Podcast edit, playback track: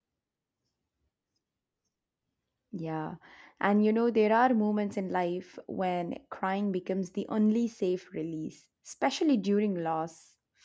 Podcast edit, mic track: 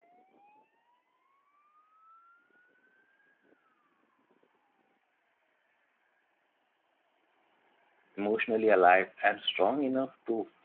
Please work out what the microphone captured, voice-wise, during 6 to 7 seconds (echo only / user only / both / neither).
neither